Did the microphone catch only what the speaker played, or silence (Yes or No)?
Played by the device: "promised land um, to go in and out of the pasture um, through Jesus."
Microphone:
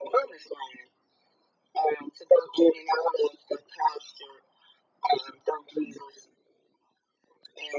Yes